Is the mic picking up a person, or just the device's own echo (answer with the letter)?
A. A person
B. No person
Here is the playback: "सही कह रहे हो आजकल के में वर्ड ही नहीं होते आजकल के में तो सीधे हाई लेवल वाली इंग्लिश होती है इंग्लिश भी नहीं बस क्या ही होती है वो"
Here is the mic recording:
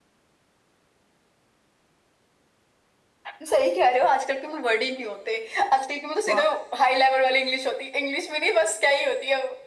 A